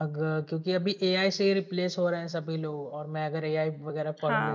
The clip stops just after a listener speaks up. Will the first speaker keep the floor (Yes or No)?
No